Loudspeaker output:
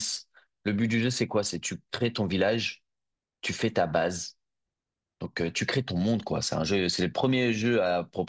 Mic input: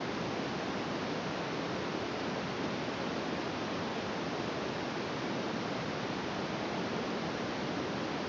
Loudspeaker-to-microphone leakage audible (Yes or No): No